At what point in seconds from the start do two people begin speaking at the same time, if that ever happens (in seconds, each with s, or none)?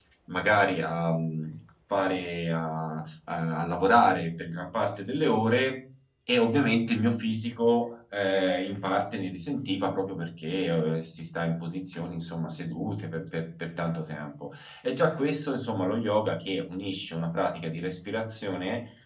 none